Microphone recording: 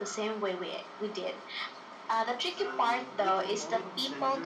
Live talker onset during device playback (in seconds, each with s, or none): 2.4 s